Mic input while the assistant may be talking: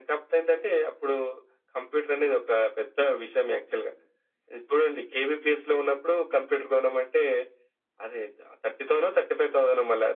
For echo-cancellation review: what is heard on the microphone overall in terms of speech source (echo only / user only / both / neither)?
echo only